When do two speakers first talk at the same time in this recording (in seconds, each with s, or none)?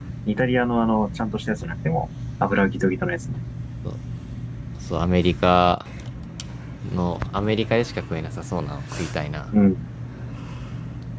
none